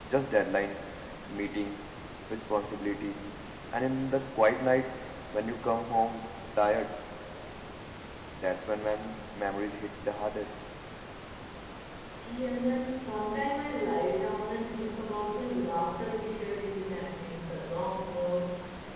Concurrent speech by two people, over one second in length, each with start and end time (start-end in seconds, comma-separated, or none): none